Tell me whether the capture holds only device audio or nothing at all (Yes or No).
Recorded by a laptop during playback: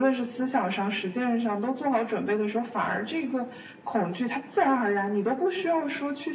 Yes